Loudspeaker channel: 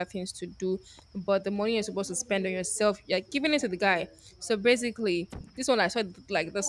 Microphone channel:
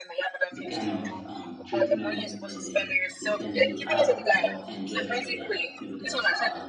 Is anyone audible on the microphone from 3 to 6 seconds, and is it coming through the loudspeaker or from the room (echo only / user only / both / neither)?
both